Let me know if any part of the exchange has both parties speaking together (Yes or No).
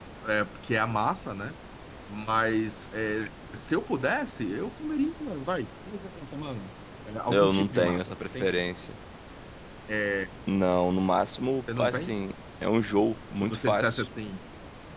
Yes